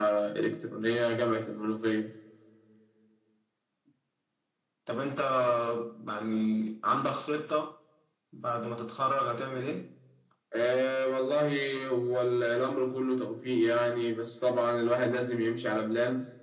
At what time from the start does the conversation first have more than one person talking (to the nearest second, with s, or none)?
none